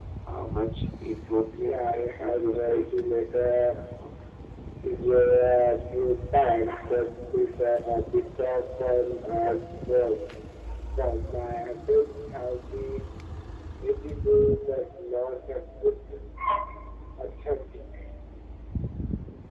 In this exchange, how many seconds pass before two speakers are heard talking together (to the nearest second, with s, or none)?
2 s